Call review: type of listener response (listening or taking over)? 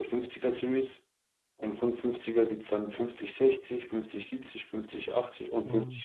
listening